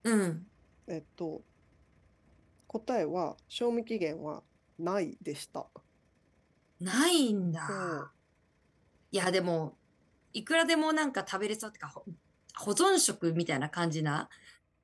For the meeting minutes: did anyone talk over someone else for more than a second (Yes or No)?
No